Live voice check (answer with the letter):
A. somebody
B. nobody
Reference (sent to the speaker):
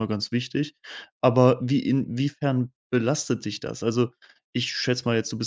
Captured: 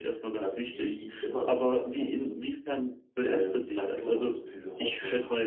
A